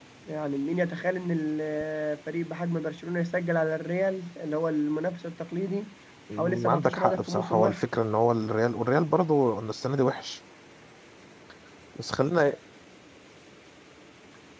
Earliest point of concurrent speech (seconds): 6 s

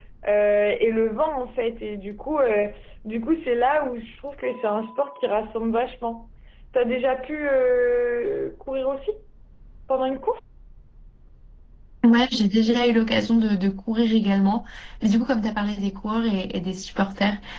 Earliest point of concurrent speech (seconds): none

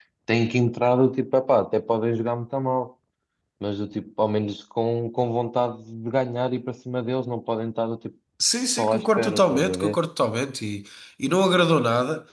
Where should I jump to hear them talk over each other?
9 s

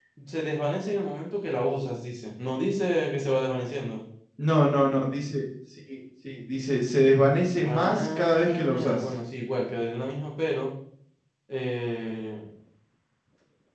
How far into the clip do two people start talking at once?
8 s

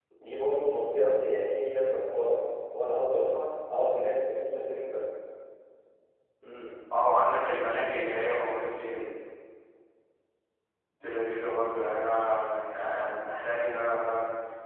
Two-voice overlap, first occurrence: none

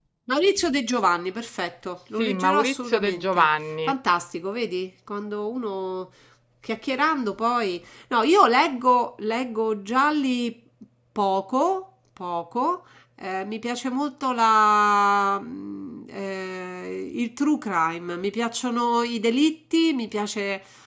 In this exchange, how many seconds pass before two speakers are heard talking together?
2 s

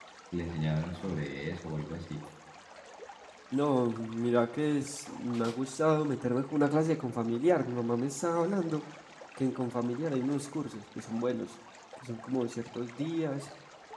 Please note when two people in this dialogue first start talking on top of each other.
none

